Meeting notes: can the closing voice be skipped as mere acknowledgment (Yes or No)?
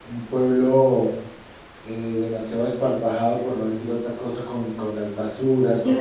No